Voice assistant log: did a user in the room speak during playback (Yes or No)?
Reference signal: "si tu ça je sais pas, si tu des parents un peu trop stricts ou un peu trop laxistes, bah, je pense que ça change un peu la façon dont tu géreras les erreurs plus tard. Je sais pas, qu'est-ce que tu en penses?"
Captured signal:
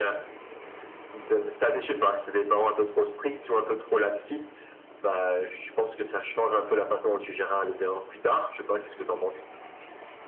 No